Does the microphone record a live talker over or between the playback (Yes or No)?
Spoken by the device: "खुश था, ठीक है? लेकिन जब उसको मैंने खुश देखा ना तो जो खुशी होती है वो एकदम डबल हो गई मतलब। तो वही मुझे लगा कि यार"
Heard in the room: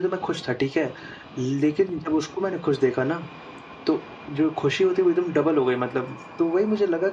No